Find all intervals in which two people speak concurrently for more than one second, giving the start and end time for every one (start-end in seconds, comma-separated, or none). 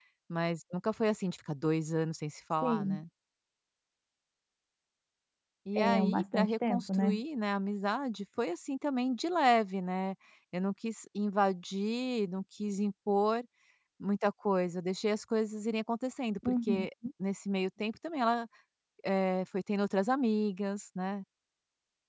5.8-7.2